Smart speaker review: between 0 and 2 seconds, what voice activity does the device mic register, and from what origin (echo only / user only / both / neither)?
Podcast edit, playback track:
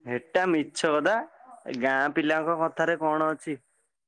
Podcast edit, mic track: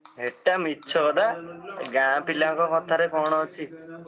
both